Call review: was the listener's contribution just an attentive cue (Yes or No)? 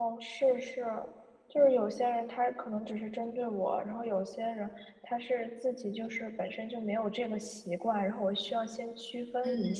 No